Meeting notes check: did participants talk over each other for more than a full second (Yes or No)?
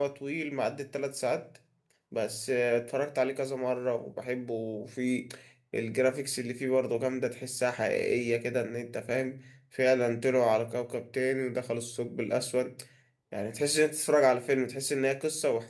No